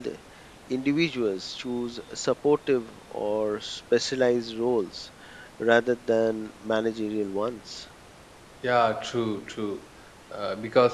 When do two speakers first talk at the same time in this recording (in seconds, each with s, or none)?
none